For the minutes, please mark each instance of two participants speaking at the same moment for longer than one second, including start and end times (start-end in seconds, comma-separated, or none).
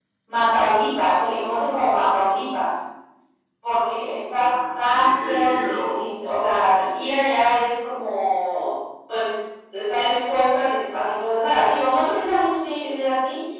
4.3-6.1